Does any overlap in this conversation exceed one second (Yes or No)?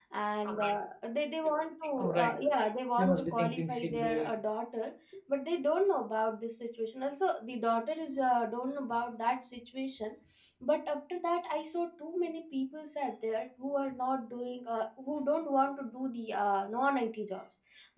Yes